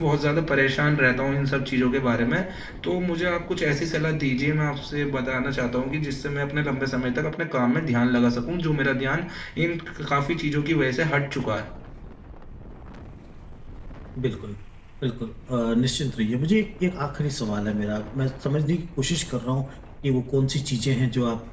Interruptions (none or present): none